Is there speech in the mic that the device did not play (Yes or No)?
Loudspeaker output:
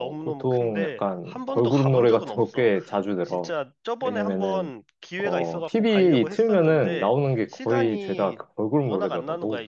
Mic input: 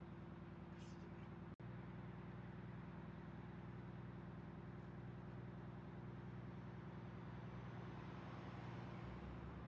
No